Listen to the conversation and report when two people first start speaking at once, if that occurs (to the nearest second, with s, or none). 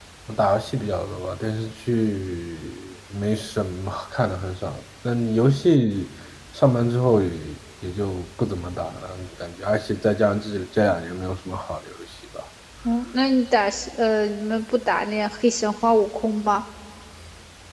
none